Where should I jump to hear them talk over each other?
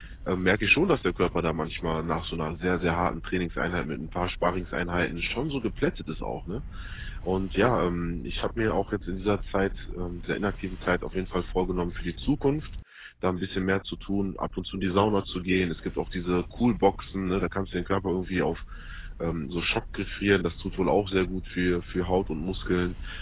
none

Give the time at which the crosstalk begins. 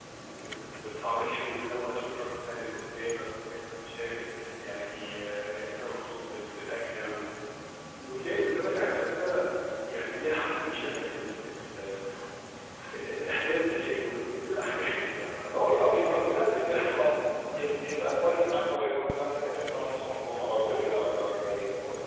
15.5 s

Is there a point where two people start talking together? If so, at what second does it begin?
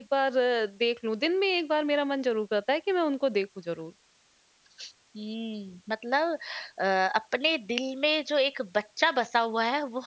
none

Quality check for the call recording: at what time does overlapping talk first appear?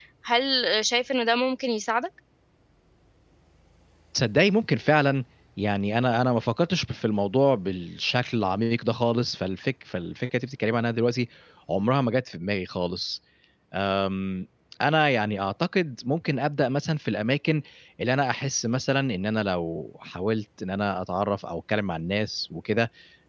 none

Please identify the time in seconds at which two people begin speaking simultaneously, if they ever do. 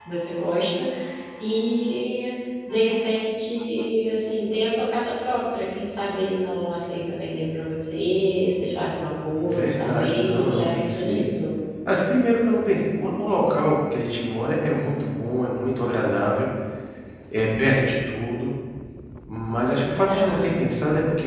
9.3 s

